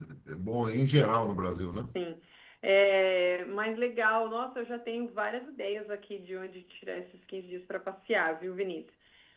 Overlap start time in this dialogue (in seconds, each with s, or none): none